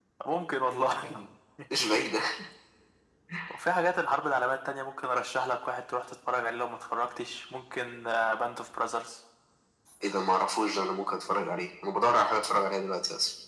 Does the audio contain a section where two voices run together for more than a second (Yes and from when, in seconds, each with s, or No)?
No